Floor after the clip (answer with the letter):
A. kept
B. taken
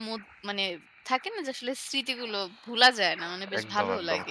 B